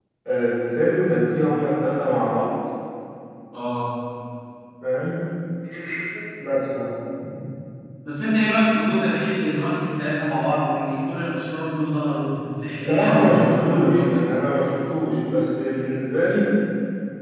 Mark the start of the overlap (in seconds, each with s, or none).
12.8 s